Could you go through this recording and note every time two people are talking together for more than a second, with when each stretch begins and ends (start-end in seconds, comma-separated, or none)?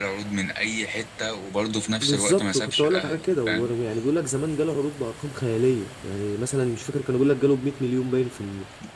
2.0-3.7